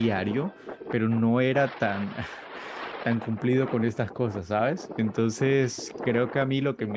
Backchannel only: Yes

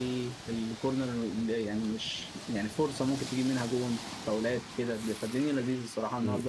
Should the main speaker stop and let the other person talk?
Yes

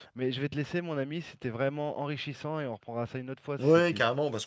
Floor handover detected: Yes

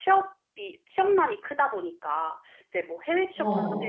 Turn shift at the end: No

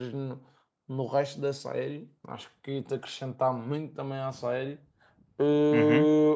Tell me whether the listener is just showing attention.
No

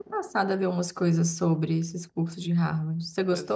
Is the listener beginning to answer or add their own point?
Yes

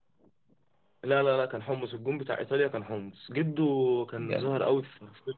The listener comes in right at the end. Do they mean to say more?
No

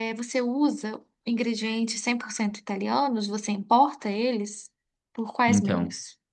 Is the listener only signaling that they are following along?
No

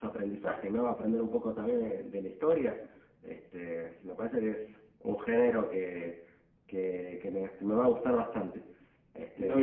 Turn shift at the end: Yes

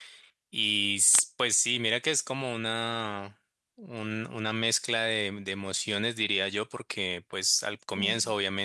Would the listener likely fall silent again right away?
Yes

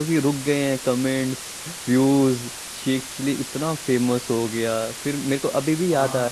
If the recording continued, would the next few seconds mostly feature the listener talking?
No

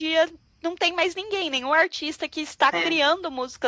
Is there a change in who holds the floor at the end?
No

